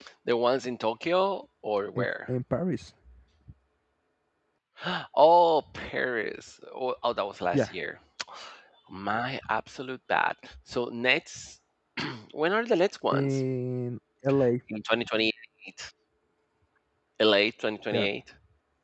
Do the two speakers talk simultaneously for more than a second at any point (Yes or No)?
No